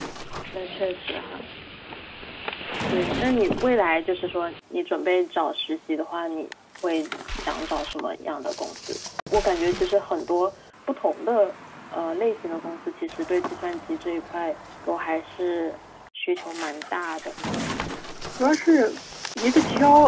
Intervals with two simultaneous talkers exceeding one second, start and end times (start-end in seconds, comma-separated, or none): none